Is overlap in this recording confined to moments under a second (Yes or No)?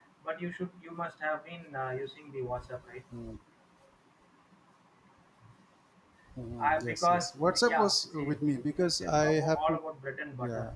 No